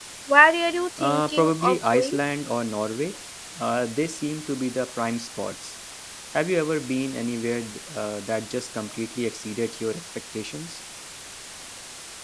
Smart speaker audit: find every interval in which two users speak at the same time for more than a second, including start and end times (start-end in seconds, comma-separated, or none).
1.0-2.2